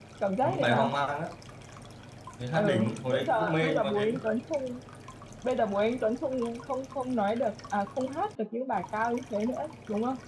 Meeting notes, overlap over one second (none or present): present